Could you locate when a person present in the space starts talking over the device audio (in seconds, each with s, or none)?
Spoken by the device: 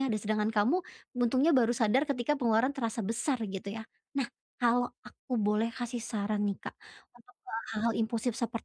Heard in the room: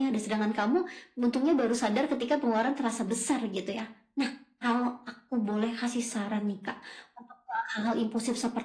none